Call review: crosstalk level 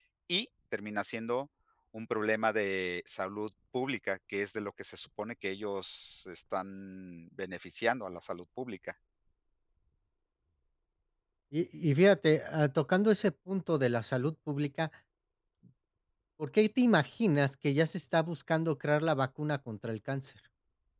none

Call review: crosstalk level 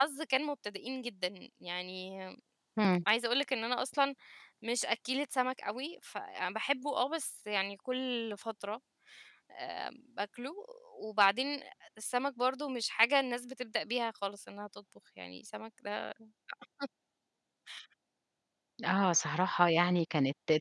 none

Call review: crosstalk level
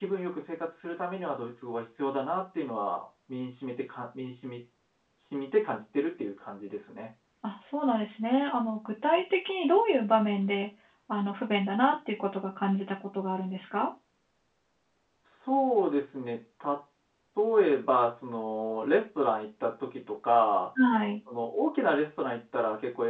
none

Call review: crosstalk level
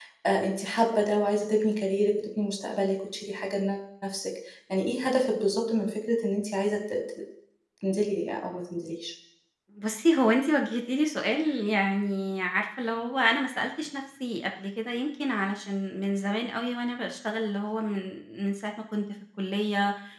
none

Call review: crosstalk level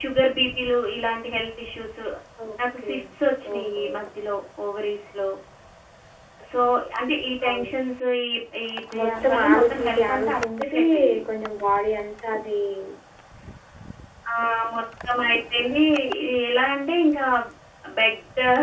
present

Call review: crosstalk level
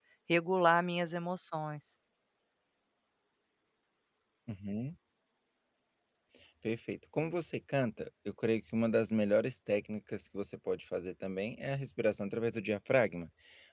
none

